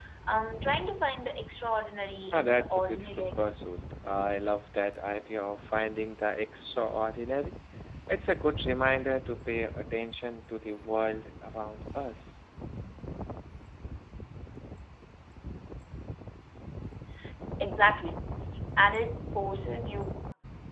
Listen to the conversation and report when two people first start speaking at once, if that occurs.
2.3 s

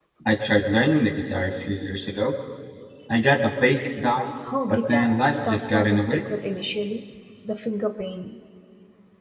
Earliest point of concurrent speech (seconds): 4.4 s

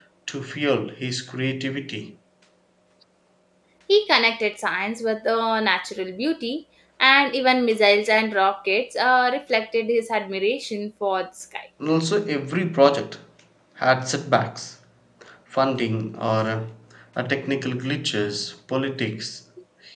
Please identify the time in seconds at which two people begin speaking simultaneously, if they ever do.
none

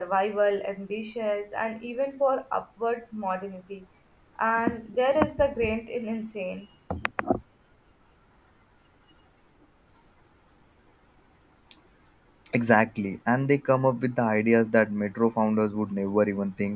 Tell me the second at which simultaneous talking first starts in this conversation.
none

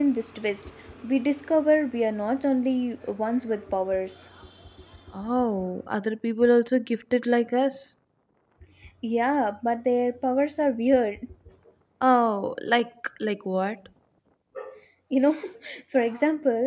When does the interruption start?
none

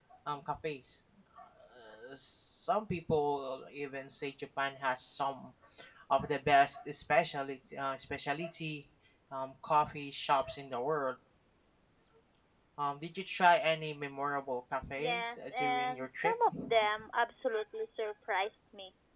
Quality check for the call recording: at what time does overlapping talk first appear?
15.0 s

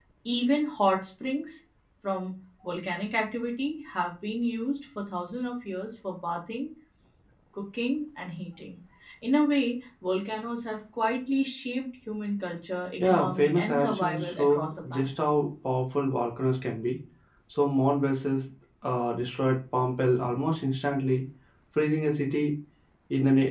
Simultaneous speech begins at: 13.0 s

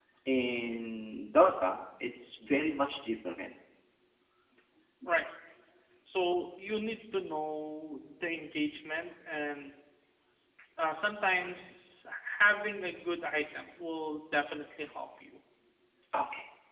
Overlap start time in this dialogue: none

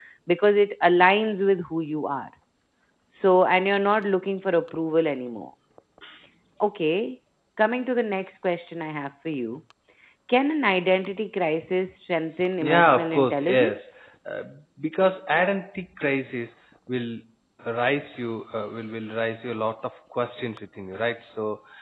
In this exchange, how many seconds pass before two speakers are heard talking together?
12.6 s

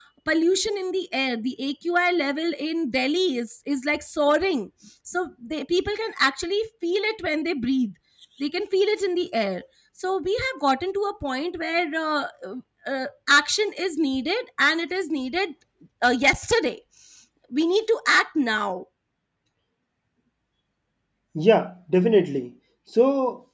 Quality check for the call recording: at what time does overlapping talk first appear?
none

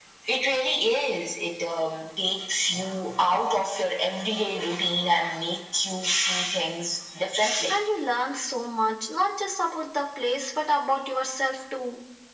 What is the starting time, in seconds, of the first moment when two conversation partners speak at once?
none

